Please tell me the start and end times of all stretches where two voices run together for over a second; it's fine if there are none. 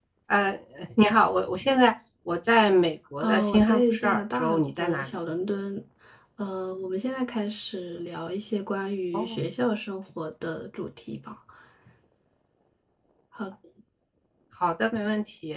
3.2-5.1

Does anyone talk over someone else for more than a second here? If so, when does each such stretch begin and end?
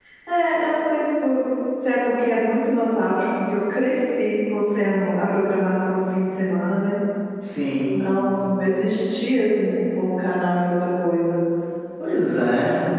none

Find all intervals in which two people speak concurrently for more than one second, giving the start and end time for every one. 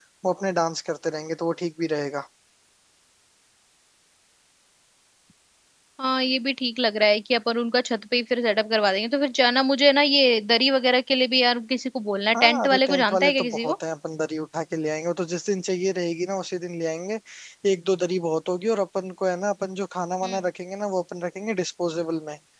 12.3-13.7

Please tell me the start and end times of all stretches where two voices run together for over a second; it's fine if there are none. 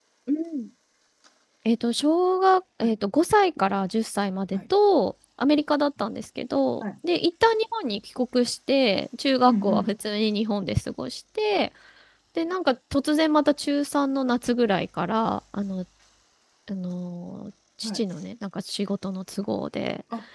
none

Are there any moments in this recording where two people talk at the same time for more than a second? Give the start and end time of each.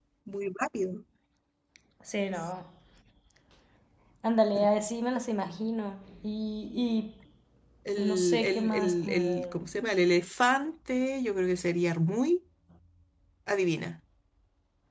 8.0-9.4

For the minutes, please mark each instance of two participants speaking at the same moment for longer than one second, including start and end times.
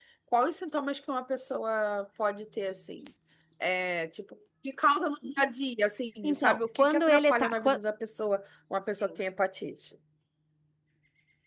6.2-7.8

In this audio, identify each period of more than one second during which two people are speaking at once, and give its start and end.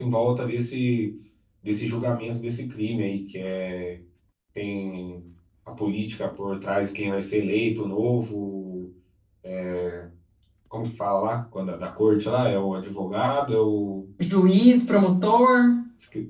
none

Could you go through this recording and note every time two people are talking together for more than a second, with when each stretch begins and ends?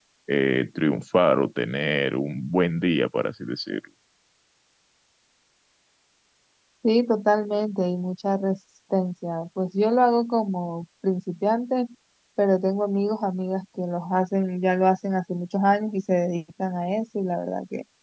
none

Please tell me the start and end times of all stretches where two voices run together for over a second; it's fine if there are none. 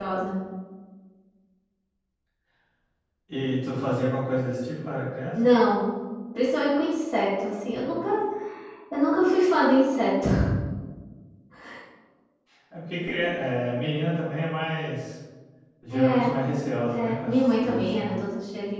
16.9-18.1

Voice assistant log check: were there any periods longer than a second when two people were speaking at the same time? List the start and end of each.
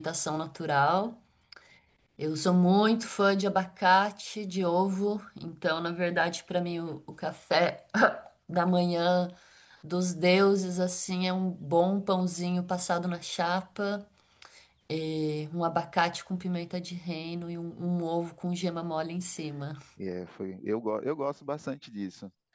none

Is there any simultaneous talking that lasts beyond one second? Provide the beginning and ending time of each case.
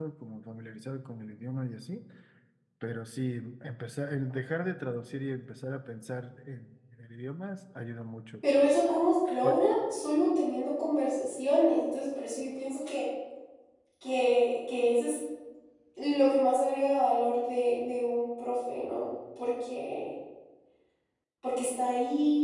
none

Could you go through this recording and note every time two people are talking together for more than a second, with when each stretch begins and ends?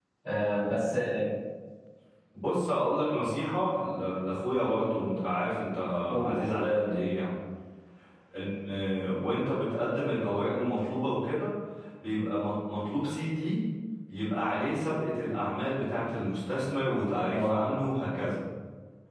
none

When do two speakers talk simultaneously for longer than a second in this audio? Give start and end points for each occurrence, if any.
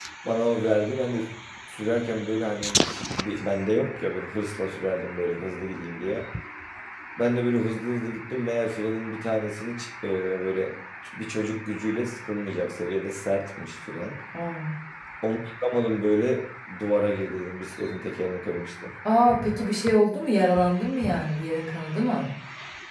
none

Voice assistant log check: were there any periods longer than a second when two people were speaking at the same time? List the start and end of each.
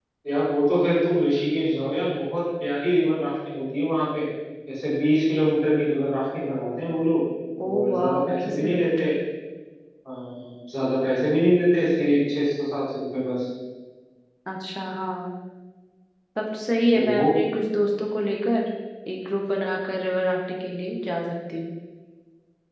7.8-9.1

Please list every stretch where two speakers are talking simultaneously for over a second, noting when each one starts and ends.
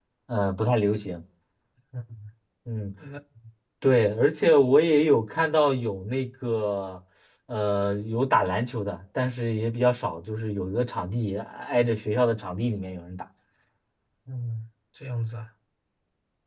none

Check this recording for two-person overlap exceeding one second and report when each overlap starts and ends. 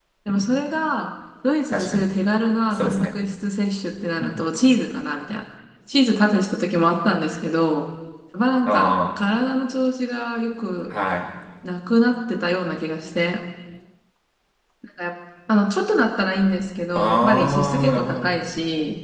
16.9-18.3

